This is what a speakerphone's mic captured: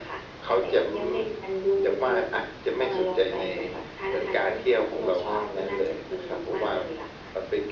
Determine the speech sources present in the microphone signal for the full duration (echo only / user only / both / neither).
echo only